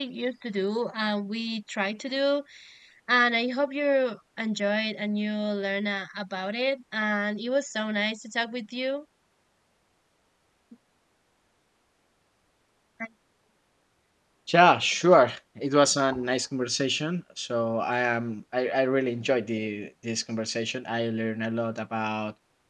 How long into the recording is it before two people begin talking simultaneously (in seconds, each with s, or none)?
none